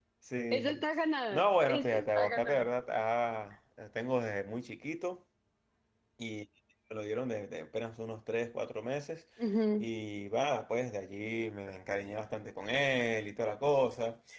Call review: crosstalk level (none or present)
present